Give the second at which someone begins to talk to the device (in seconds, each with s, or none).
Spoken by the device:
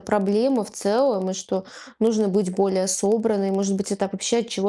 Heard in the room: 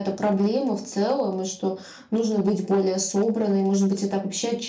none